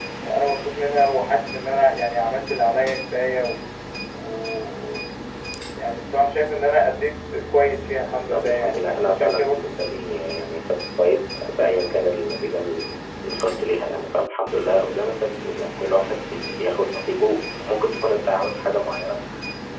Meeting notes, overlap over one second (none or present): present